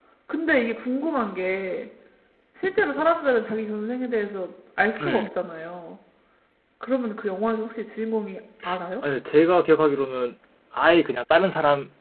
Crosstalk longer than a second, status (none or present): none